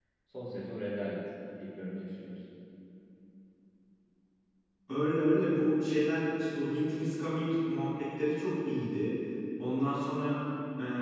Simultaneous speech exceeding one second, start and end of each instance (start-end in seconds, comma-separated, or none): none